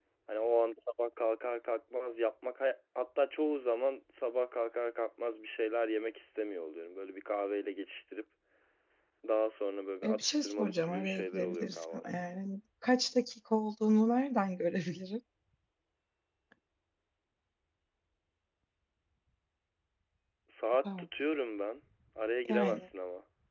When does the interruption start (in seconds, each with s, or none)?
10.0 s